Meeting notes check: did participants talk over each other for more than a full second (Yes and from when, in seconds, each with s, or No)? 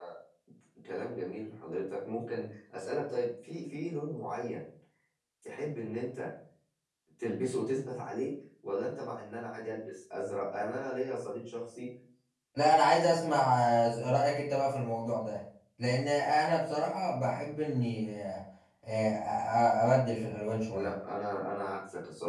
No